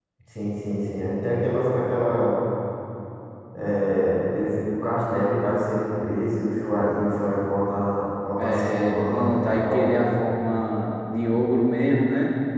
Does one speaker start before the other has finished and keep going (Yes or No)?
Yes